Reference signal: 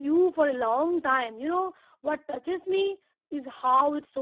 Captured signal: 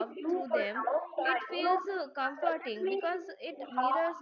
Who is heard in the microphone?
both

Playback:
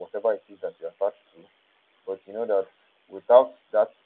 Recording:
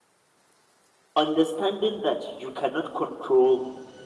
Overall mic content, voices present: user only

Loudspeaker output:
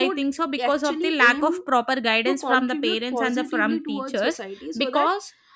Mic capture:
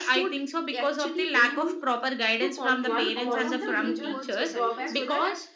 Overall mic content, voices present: both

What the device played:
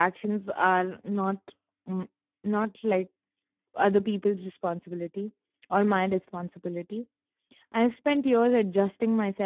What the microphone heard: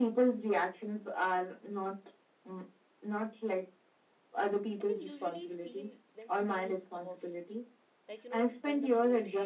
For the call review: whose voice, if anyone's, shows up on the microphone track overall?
both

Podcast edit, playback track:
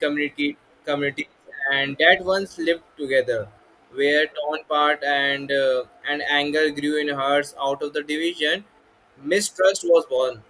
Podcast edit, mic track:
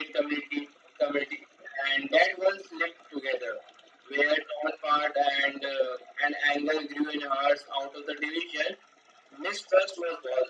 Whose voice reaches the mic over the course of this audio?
echo only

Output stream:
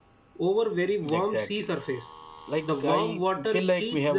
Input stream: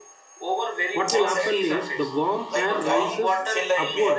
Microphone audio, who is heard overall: both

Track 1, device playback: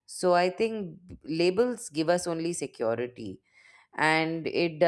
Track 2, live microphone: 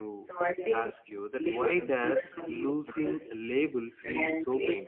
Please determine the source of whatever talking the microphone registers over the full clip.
both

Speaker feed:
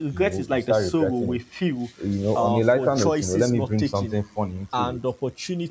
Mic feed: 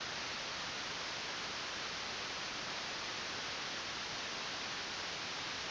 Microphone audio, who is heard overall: neither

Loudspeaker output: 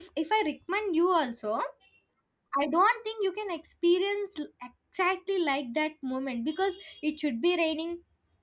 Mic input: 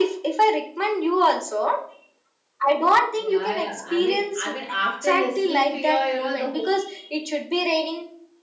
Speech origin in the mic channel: both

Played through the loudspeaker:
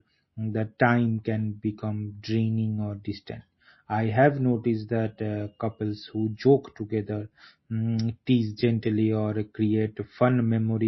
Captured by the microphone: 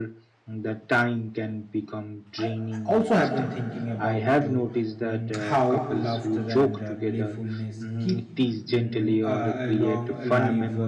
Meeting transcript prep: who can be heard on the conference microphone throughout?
both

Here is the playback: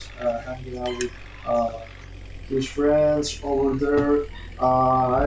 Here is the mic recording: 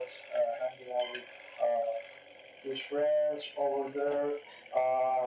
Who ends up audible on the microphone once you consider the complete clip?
echo only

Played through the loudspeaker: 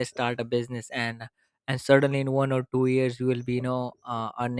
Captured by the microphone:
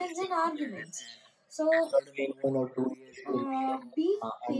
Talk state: both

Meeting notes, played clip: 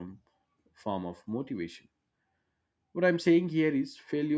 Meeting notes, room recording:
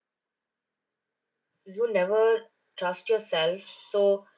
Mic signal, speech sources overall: user only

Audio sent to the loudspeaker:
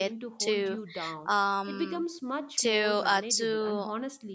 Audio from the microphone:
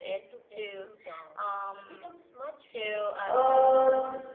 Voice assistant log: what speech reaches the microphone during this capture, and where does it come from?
both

